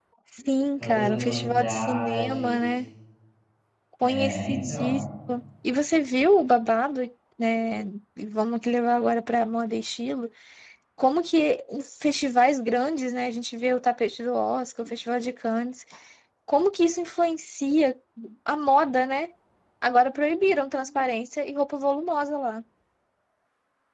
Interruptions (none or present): present